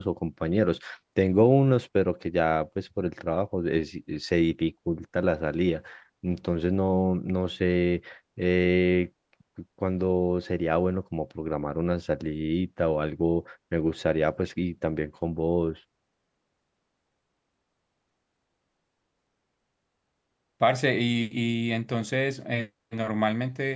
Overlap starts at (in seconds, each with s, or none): none